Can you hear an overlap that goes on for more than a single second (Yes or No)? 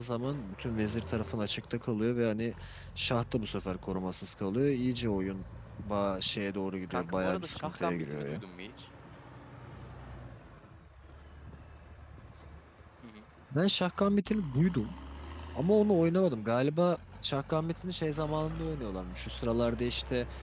Yes